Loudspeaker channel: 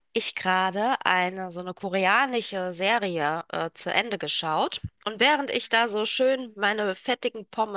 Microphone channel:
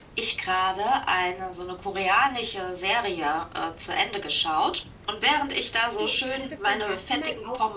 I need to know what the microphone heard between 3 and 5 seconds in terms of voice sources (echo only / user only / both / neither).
echo only